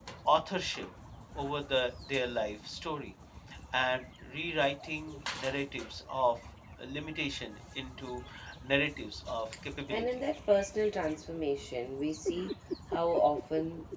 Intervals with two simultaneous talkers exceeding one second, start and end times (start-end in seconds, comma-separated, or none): none